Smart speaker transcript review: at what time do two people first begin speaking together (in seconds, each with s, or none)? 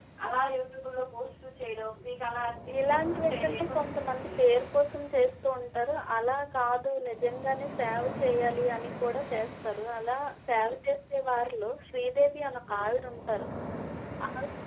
2.8 s